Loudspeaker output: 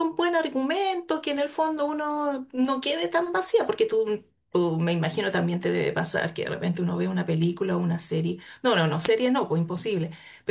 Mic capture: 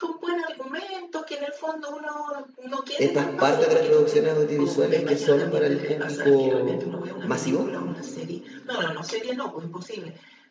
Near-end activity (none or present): present